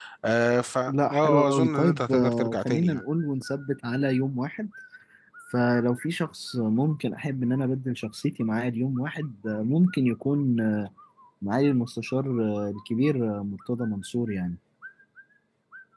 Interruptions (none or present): present